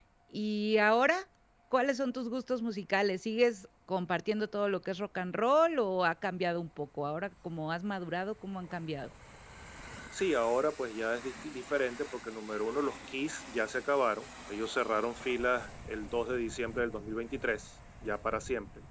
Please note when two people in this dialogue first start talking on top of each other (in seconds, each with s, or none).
none